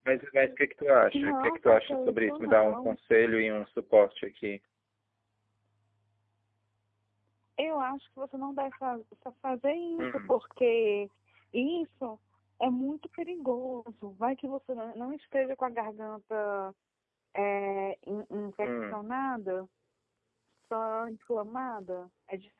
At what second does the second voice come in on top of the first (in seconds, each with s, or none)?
1.1 s